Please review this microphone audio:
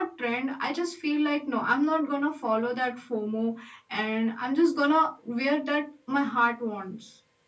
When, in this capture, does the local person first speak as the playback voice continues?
none

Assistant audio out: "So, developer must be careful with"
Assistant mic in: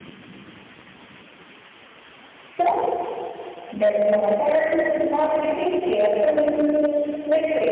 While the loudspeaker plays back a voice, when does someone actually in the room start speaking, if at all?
none

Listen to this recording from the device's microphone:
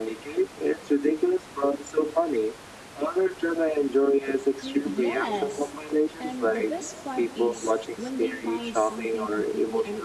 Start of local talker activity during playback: 5 s

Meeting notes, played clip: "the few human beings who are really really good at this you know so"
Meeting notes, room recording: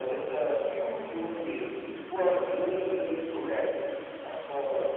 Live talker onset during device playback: none

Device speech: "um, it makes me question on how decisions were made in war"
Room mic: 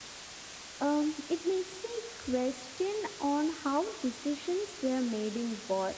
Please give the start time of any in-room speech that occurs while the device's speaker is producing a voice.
none

